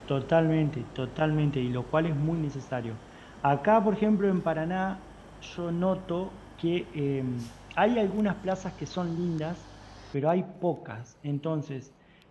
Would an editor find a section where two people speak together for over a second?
No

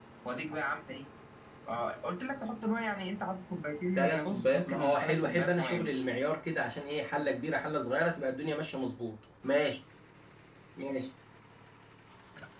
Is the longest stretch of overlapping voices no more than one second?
No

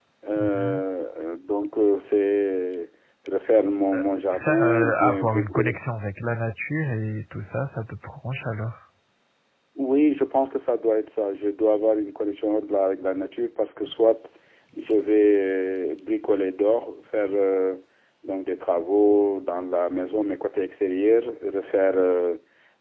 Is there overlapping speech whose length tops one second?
Yes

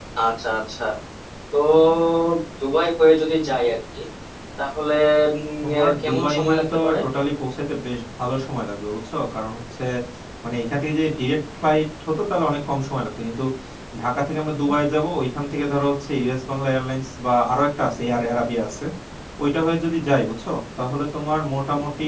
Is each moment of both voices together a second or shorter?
No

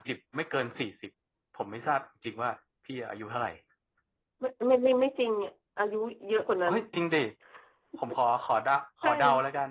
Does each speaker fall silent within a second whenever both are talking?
Yes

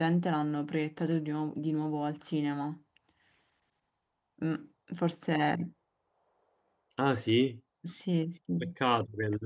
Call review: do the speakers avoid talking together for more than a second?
Yes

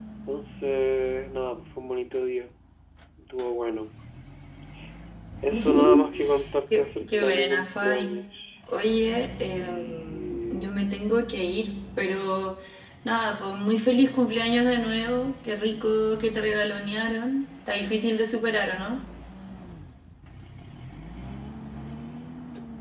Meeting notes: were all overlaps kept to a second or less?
No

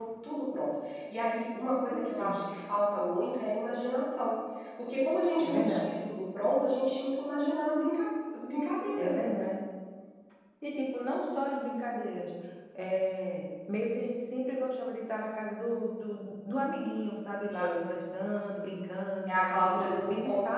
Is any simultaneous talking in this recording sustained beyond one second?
Yes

